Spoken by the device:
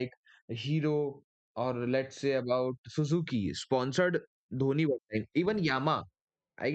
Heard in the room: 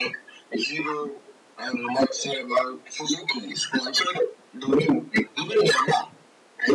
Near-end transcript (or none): none